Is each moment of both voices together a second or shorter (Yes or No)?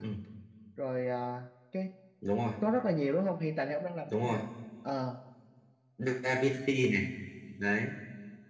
Yes